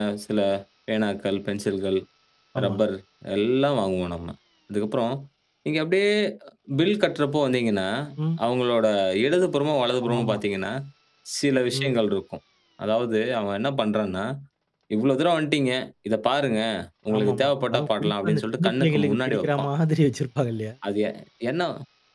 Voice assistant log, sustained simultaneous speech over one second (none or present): present